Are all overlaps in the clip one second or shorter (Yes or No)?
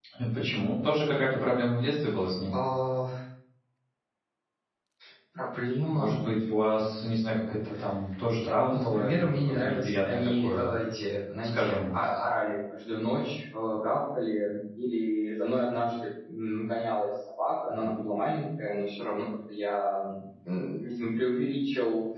No